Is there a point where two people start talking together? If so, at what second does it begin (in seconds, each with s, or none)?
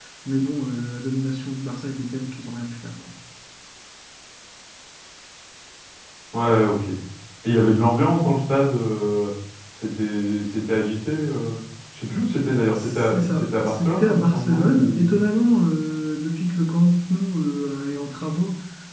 12.7 s